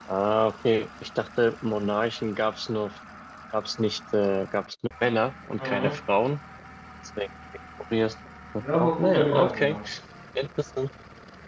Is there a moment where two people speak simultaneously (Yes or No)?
Yes